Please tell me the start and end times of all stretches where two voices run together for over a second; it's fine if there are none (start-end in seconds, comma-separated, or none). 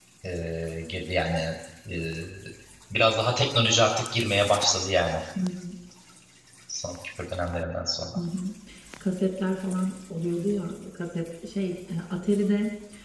none